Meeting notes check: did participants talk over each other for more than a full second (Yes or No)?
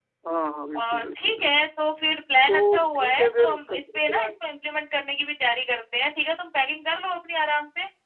Yes